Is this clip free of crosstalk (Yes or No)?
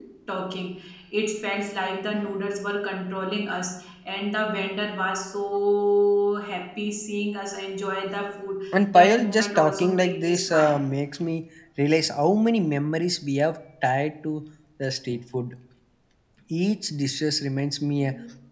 No